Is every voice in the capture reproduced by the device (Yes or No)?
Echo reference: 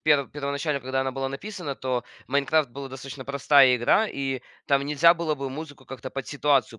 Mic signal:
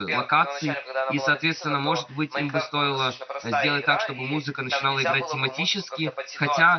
No